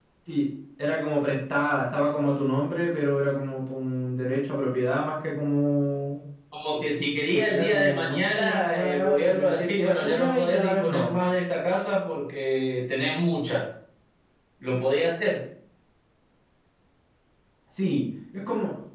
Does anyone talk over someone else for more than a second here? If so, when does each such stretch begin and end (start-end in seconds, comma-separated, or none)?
7.3-11.1